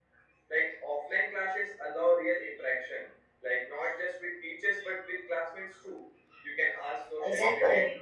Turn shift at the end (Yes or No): No